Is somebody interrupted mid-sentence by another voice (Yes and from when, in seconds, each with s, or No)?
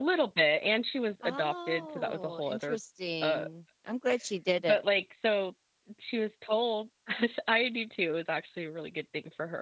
Yes, from 1.2 s